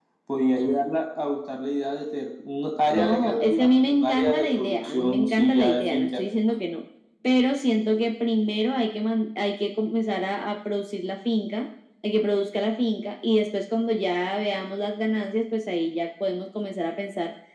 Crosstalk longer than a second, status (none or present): present